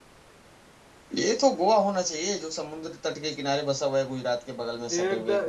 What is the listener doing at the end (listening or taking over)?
taking over